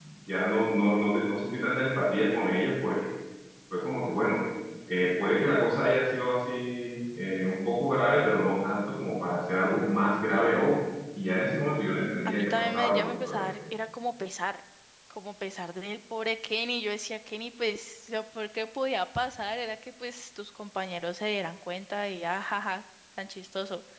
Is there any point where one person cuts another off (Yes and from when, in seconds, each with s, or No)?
Yes, from 12.2 s